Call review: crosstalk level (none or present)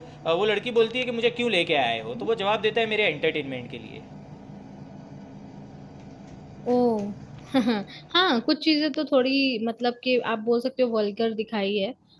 none